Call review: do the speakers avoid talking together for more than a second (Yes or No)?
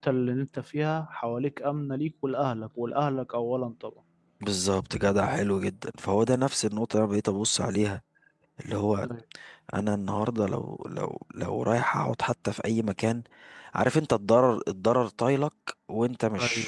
Yes